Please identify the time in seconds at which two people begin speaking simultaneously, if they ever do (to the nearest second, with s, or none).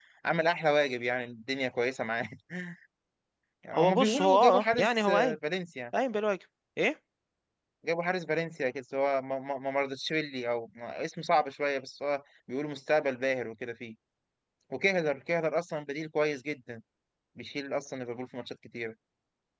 4 s